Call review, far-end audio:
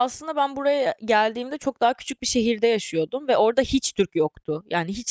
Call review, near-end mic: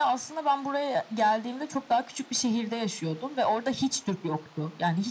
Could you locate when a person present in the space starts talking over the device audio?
none

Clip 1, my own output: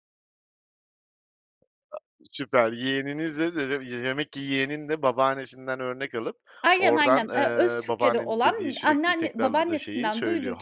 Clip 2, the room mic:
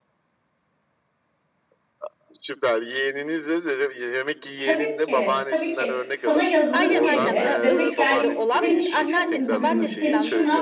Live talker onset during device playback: 4.6 s

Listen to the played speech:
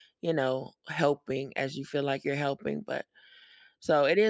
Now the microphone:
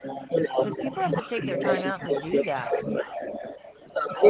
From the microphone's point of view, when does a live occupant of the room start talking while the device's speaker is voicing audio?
0.6 s

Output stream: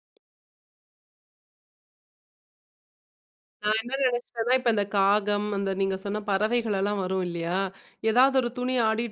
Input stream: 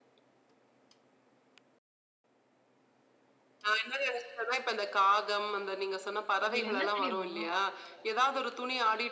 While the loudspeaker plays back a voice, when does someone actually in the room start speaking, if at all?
6.5 s

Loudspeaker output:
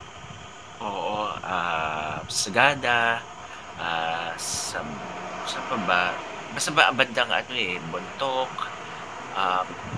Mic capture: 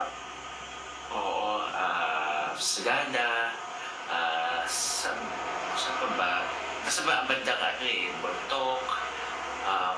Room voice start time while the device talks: none

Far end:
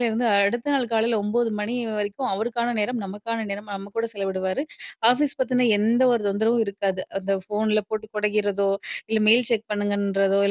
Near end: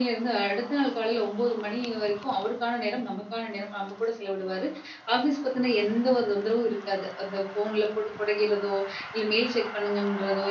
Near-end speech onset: none

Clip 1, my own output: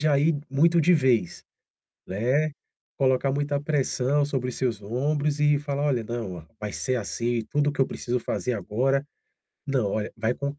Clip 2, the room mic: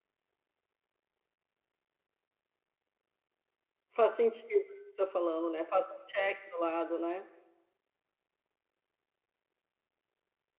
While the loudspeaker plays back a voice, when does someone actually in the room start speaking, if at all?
3.9 s

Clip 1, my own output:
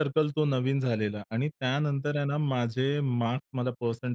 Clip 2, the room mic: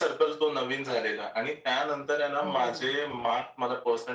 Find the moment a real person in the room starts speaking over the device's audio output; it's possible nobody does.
2.4 s

